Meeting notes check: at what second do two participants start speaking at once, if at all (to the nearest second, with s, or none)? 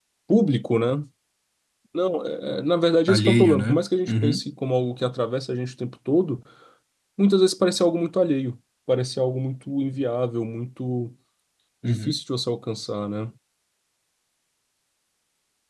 3 s